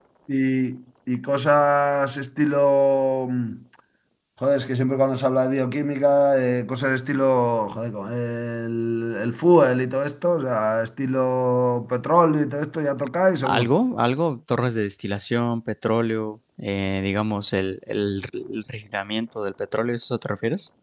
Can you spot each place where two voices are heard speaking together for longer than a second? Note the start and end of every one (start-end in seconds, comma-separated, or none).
none